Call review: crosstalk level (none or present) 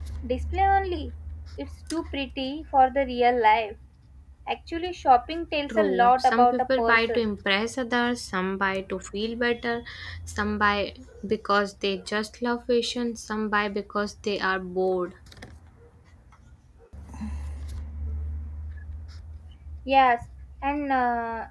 present